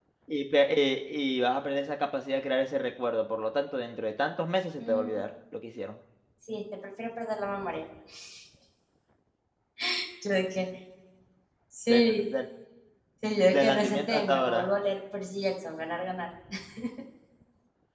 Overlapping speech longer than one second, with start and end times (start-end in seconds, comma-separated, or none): 13.5-14.7